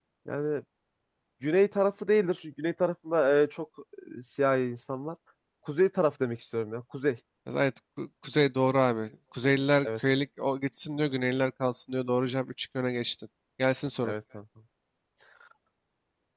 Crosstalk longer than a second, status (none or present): none